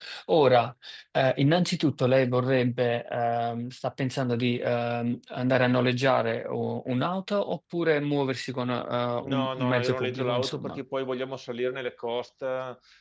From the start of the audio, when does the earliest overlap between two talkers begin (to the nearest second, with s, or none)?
9 s